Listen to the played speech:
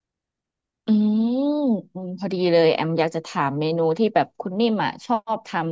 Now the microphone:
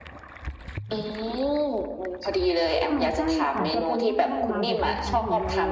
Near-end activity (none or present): present